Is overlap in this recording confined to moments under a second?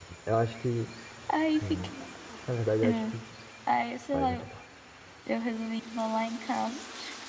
Yes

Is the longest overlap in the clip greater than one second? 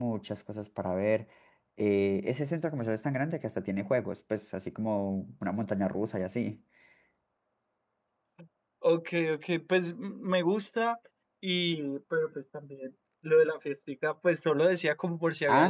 No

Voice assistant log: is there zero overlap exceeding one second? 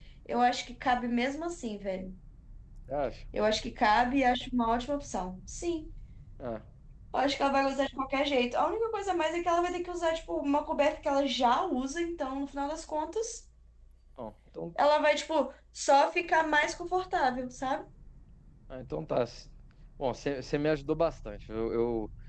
Yes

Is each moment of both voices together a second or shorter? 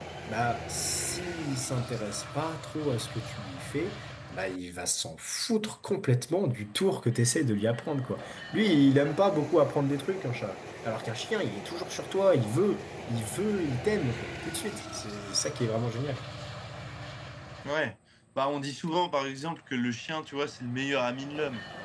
Yes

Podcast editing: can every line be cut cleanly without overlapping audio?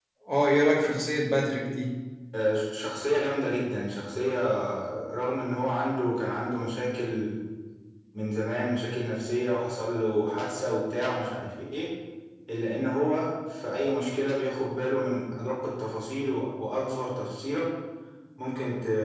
Yes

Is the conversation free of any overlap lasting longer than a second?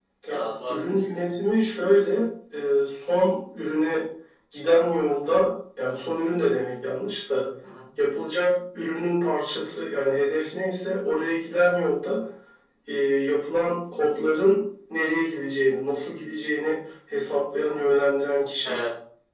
No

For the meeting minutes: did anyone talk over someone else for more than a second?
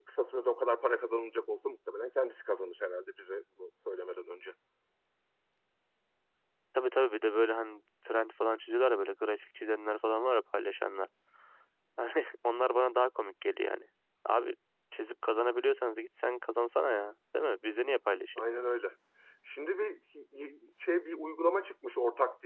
No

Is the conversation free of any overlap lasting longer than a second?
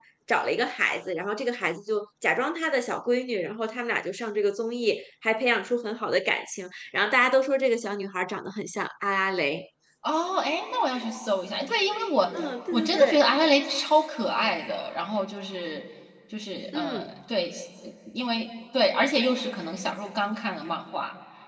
Yes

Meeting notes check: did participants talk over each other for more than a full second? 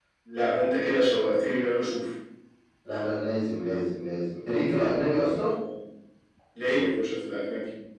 No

